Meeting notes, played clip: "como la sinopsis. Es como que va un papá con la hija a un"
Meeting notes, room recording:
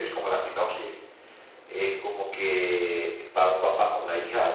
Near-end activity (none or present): none